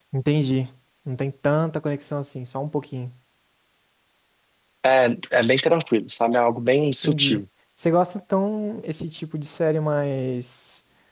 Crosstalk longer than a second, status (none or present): none